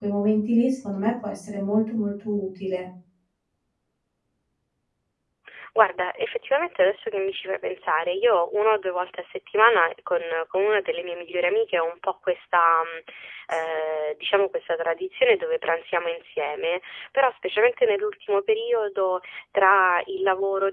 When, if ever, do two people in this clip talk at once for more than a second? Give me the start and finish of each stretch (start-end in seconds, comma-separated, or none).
none